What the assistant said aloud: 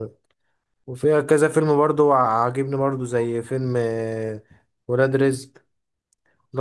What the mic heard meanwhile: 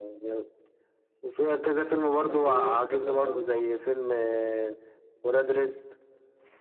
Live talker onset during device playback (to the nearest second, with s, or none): 2 s